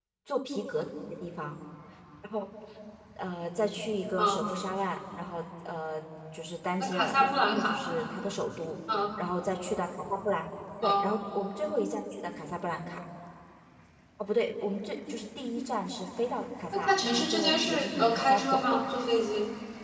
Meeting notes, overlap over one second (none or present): present